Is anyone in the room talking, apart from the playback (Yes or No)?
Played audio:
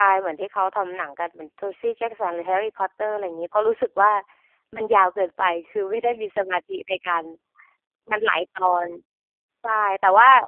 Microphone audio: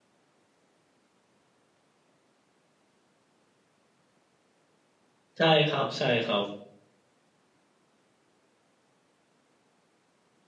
Yes